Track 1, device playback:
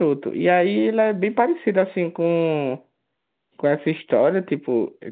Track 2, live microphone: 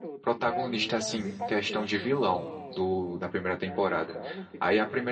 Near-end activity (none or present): present